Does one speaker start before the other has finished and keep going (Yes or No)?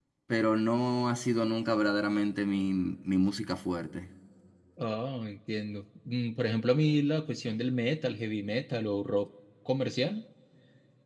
No